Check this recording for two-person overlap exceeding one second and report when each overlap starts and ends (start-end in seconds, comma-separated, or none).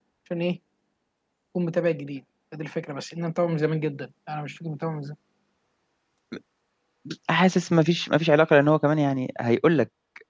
none